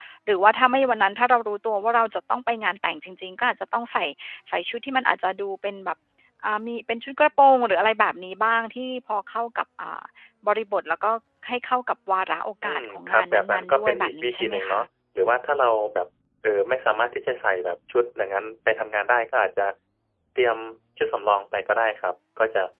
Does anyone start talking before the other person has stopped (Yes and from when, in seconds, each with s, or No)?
Yes, from 12.6 s